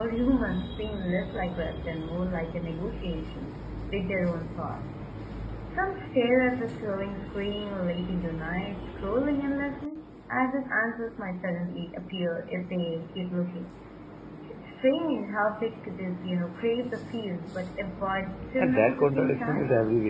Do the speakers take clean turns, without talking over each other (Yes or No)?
No